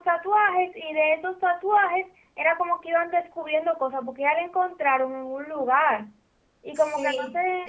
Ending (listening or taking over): taking over